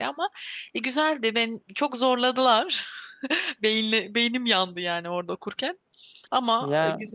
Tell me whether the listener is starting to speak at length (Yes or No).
Yes